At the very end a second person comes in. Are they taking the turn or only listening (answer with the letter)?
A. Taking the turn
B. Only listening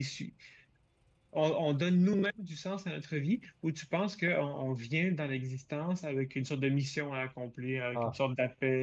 B